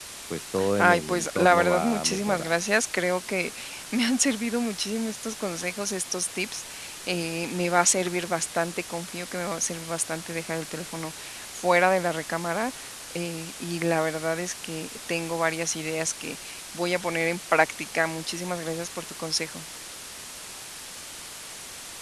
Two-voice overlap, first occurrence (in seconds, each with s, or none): 0.8 s